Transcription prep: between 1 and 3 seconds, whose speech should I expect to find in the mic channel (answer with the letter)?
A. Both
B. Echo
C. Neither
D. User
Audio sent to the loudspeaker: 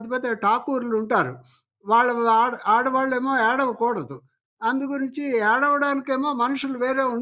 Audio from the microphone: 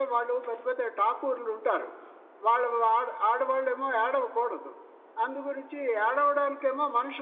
B